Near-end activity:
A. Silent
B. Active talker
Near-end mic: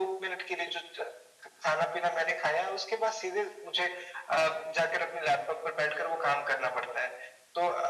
A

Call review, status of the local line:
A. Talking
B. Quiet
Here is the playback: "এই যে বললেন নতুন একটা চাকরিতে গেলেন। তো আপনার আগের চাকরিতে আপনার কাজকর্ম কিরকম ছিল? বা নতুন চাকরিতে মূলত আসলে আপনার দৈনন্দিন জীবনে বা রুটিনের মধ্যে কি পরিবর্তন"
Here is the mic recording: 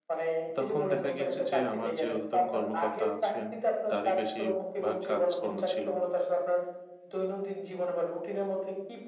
A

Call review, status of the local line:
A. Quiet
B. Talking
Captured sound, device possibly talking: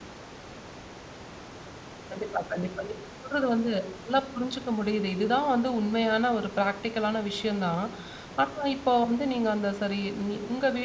B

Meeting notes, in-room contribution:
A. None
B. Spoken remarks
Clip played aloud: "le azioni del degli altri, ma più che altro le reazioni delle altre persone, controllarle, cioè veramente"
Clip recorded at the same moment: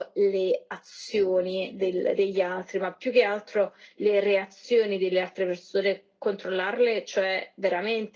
A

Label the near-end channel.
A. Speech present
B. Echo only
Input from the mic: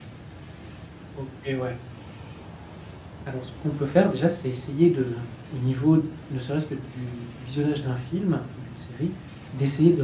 A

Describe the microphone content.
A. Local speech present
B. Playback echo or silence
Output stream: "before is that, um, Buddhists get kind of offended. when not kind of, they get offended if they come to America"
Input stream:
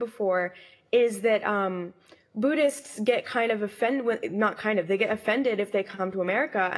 B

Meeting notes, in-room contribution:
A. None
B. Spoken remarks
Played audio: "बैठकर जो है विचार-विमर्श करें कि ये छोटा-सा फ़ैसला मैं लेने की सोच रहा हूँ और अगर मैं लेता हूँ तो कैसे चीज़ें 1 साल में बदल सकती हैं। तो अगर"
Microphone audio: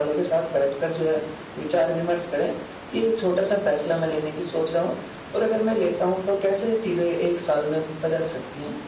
A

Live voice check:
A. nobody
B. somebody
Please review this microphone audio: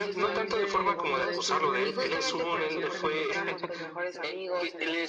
B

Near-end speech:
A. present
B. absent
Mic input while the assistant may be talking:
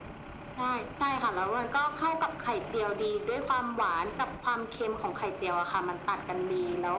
B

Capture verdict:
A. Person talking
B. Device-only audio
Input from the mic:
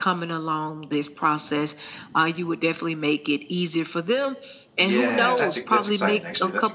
A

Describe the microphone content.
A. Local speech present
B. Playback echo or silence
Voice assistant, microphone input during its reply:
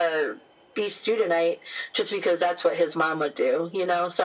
B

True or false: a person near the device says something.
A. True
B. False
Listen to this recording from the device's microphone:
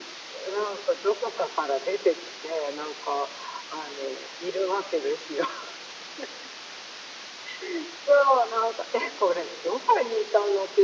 B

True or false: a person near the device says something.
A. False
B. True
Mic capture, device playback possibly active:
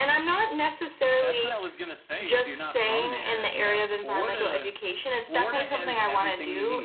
B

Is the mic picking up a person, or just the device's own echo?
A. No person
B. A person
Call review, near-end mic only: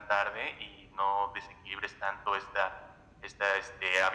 A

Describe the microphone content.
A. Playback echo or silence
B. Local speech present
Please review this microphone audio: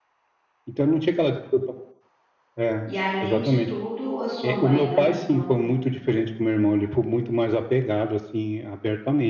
B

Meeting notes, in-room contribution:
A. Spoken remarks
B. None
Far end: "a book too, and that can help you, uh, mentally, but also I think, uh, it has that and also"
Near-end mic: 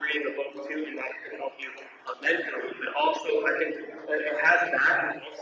B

